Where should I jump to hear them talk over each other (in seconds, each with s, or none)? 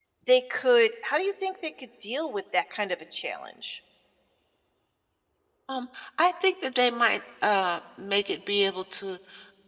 none